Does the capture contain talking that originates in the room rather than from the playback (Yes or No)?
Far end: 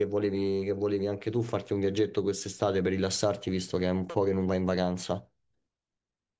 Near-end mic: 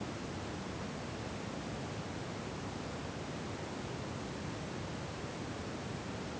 No